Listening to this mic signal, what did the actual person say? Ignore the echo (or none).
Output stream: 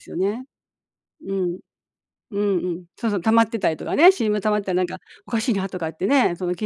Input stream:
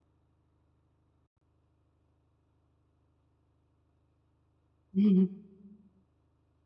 うんうん。